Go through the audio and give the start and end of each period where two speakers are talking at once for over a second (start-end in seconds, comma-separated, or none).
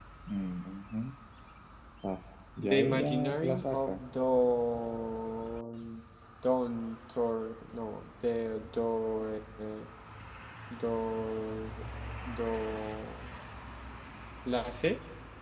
2.6-4.0